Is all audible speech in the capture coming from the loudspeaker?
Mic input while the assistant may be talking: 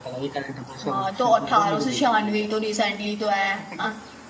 No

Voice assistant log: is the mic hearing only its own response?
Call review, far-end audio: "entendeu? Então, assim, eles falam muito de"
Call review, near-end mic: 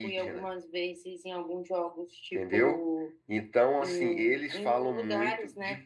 No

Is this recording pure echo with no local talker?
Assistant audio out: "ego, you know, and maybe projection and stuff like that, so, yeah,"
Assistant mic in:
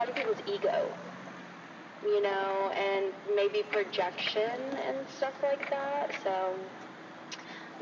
Yes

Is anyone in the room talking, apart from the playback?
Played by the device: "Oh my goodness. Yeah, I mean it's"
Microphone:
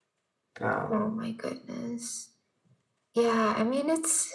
Yes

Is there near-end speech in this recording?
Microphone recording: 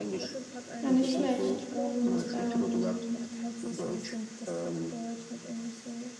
Yes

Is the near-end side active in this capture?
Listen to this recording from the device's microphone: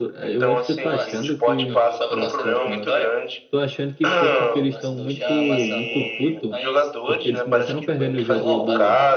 Yes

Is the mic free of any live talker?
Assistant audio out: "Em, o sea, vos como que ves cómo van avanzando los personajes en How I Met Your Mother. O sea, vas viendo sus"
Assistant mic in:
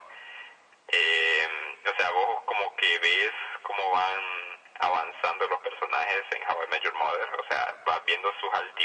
Yes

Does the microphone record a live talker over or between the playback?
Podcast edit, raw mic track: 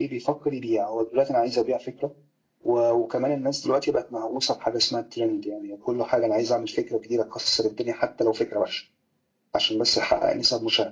No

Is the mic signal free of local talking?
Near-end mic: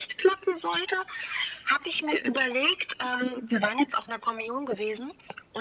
Yes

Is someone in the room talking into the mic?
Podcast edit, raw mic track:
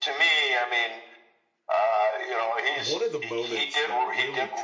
Yes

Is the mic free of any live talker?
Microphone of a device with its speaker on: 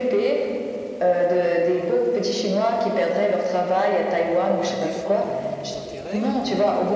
No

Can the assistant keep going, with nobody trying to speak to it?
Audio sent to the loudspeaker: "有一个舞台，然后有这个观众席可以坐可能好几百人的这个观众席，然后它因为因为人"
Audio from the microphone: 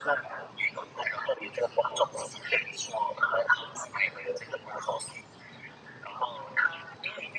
Yes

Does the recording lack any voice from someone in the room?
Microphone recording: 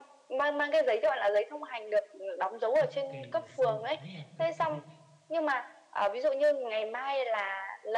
No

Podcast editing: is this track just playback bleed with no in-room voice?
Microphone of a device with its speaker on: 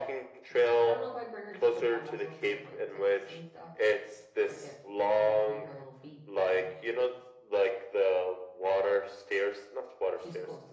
No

